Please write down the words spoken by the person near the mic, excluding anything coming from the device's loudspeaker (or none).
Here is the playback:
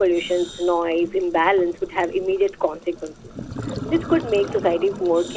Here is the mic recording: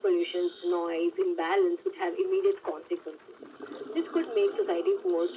none